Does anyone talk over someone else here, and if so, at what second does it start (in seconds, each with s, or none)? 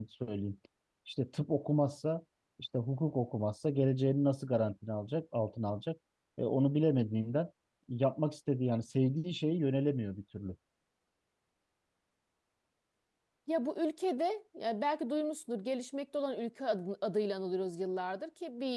none